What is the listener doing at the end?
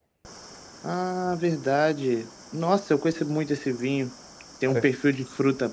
listening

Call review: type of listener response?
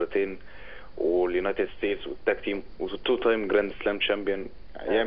taking over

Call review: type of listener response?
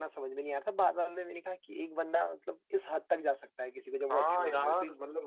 taking over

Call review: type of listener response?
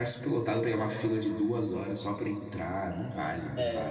taking over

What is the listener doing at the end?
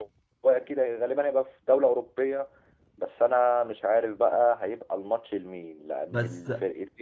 listening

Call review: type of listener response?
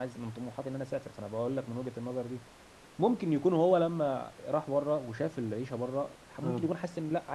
listening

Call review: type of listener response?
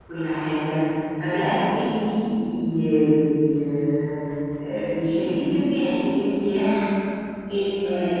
listening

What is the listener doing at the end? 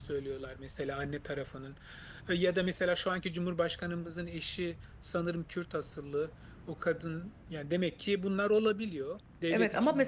taking over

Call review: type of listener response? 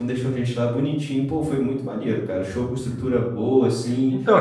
taking over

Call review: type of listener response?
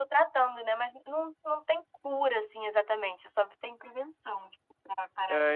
taking over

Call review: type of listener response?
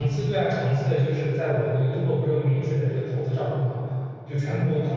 listening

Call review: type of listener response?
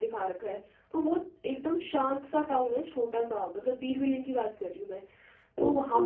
listening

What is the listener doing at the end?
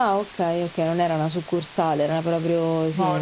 taking over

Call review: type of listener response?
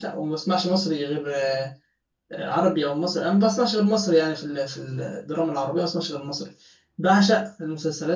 listening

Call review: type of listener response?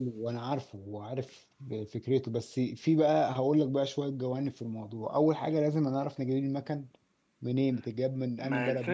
taking over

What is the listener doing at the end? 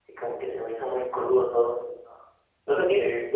listening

